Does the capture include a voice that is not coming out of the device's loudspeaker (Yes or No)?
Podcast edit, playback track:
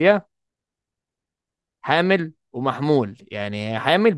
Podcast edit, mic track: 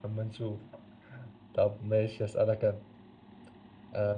Yes